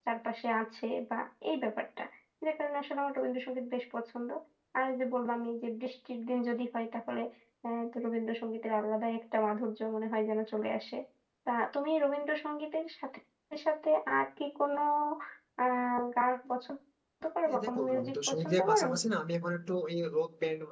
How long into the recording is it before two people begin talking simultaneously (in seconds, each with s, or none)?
17.5 s